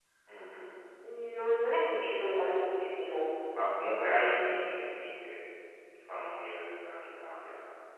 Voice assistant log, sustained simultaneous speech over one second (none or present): none